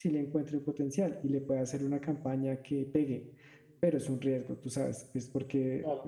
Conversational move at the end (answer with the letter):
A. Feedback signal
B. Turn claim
B